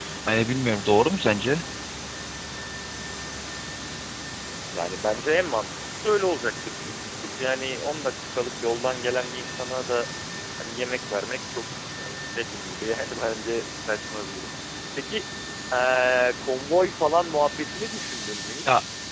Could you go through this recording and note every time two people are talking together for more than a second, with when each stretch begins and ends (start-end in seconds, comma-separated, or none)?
none